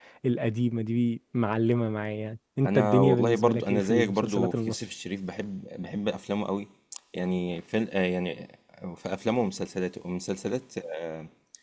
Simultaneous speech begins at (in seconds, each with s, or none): 2.6 s